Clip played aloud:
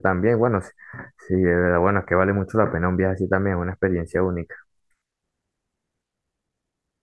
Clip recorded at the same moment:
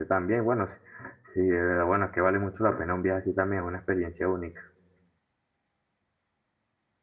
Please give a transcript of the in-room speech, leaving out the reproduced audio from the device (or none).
none